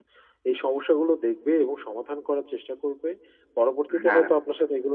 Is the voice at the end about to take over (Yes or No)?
No